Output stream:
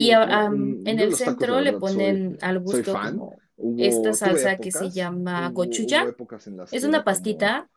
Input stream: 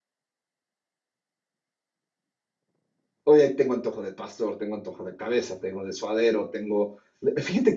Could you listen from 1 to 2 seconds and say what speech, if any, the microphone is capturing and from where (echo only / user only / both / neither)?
neither